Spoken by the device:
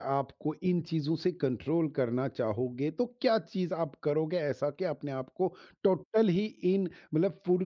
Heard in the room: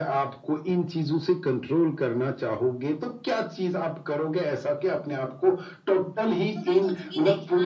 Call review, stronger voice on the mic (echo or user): echo